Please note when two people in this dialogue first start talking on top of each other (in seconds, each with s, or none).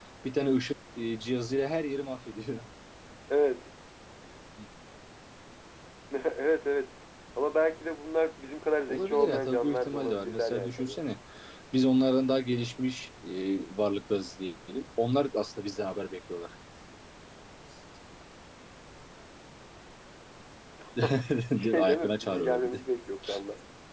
8.9 s